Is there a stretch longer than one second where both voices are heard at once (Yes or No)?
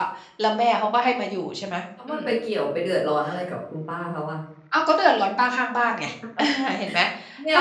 No